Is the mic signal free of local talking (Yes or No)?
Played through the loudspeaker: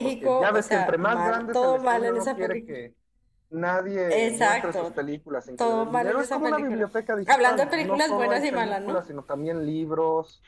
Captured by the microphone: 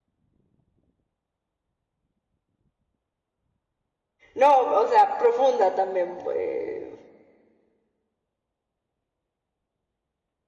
No